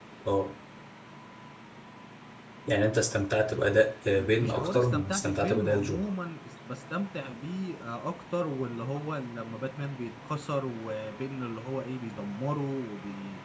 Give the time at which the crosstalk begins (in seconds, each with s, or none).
4.2 s